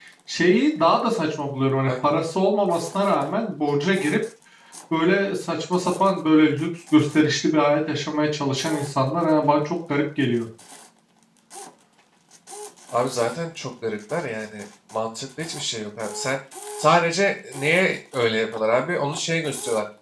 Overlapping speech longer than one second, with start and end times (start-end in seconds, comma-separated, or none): none